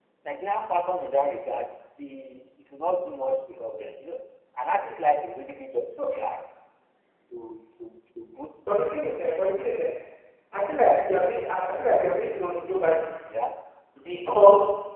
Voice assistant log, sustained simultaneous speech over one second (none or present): none